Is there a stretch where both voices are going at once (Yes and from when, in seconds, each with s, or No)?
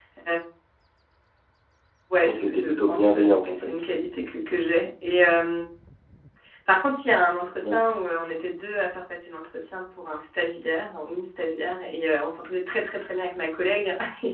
Yes, from 2.2 s